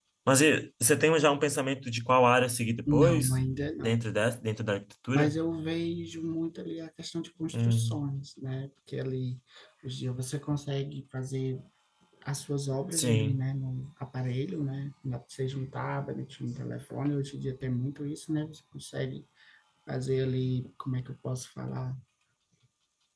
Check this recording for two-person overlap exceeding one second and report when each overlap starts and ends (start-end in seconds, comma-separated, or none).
none